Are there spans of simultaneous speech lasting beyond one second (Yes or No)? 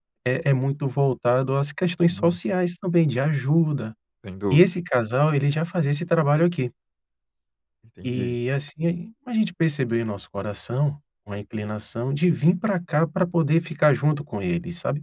No